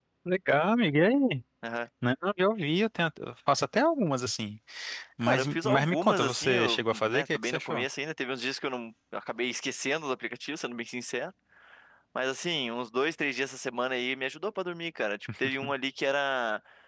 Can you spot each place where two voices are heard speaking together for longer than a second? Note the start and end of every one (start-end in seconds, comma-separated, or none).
5.2-7.8